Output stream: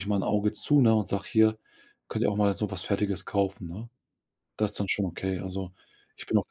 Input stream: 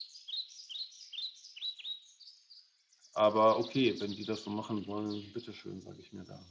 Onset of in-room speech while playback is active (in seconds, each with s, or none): 3.1 s